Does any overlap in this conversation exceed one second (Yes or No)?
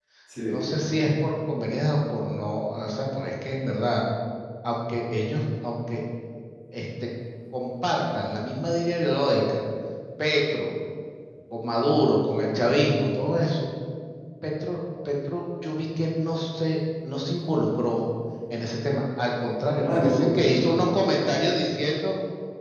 Yes